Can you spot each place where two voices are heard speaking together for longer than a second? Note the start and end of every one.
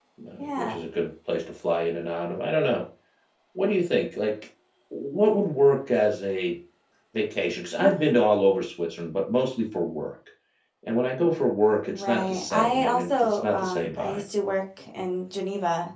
11.9-14.2

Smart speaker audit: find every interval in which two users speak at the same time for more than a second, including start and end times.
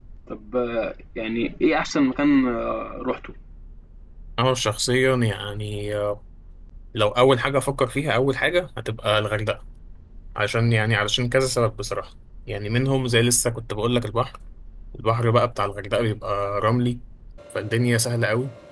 none

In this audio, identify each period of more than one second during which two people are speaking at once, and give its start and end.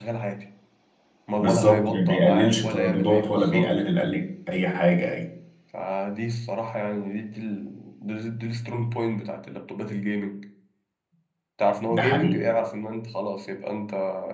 1.4-3.7

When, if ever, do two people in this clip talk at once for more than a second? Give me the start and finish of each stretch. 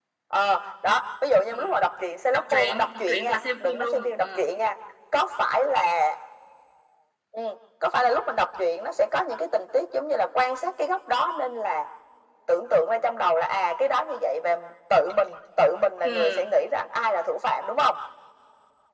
2.3-4.2

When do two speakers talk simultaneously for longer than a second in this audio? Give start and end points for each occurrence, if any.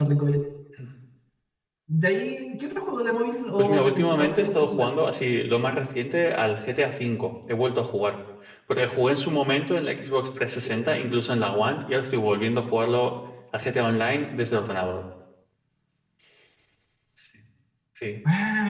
3.6-4.9

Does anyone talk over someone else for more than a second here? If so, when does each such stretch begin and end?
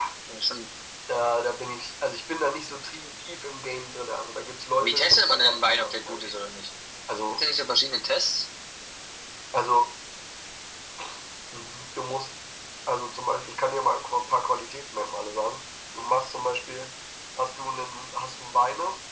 4.8-6.3

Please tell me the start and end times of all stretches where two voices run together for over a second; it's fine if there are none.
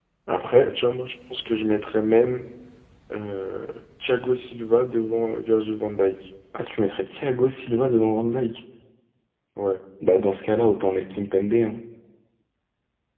none

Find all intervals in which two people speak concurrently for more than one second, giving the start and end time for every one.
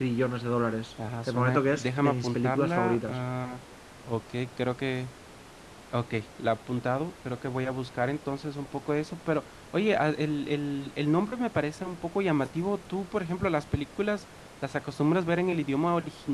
1.3-3.2

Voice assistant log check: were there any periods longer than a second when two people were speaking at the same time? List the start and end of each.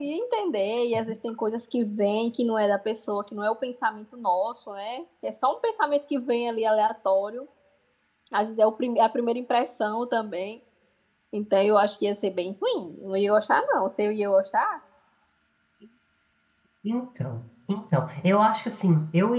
none

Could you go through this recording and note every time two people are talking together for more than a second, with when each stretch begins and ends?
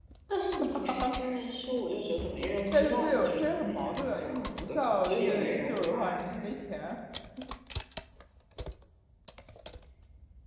2.7-6.2

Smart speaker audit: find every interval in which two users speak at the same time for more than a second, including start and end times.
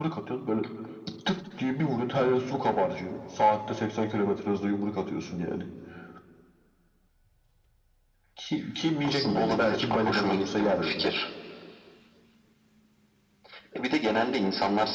9.0-11.0

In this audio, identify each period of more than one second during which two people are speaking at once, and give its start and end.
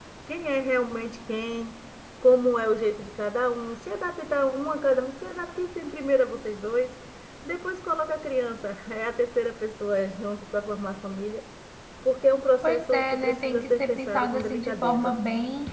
12.6-15.1

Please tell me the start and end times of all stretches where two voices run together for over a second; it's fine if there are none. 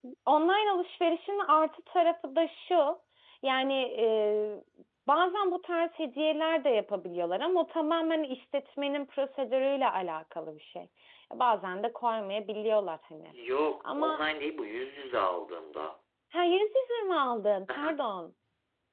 none

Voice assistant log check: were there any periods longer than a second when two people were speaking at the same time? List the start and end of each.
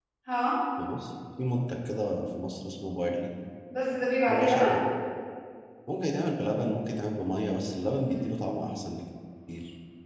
none

